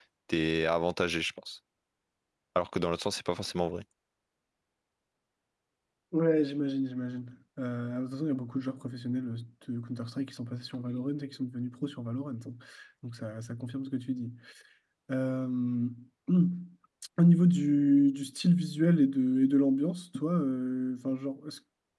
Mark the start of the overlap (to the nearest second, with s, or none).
none